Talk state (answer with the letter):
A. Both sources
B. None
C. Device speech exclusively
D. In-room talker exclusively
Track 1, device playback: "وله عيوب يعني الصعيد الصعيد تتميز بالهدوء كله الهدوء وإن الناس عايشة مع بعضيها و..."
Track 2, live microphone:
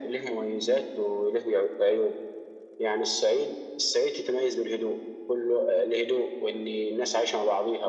C